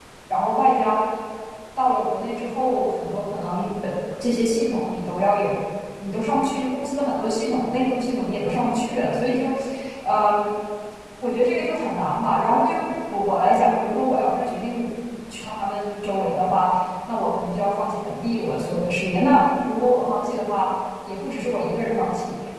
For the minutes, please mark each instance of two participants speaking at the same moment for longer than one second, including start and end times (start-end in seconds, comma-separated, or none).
none